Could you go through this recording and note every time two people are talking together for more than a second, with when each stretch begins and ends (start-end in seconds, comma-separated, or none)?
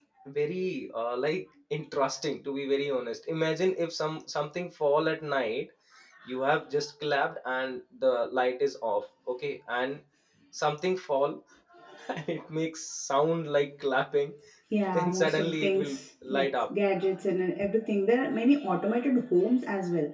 14.9-16.7